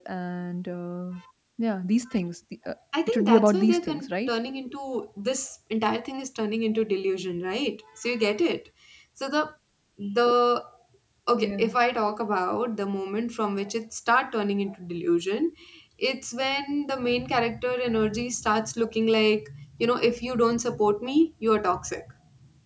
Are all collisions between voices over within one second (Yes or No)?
No